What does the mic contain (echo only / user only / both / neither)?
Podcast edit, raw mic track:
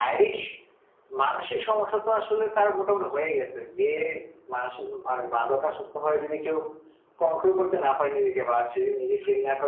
echo only